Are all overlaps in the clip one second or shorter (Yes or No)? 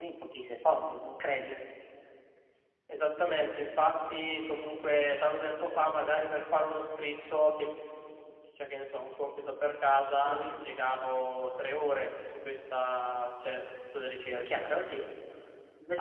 Yes